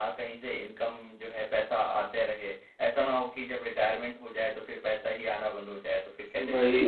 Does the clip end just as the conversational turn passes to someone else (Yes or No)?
Yes